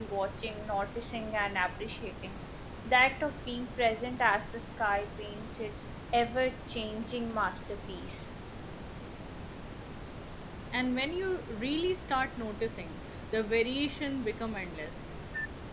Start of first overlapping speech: none

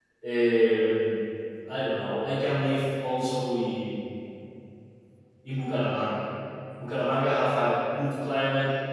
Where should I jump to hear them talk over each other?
none

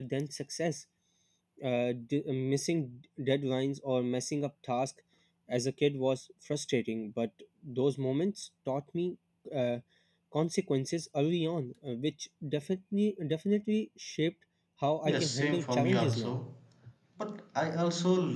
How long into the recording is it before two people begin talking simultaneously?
15 s

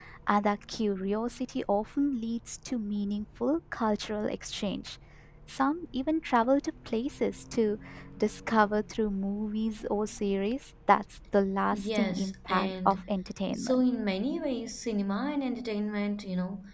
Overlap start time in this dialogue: 12 s

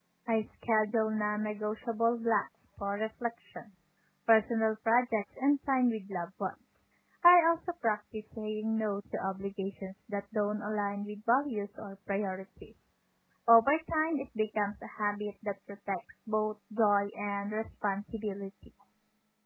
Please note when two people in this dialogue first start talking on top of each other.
none

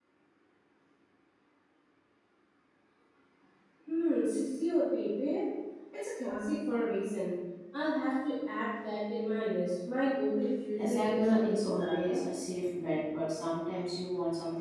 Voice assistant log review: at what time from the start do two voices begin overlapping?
11 s

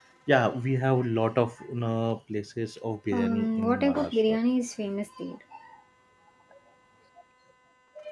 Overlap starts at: 3 s

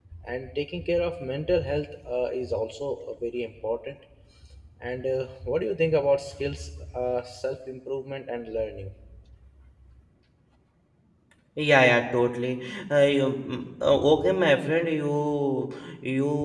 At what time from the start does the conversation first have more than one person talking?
none

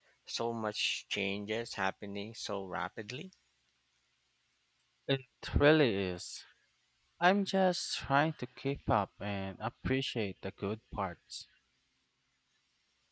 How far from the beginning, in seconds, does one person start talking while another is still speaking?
none

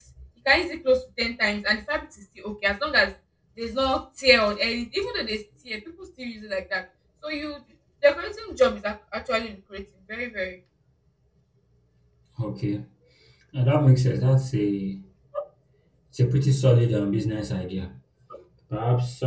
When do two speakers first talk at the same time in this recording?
none

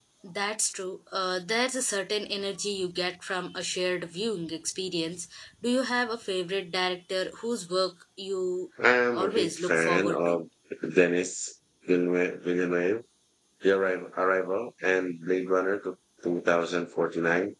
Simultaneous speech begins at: 9 s

